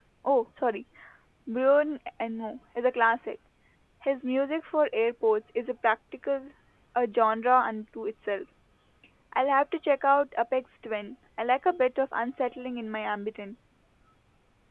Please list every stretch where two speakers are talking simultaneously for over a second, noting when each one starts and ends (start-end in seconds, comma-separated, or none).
none